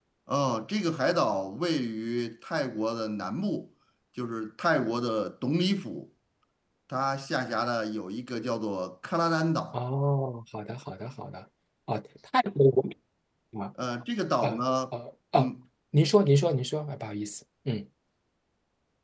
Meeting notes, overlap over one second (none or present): none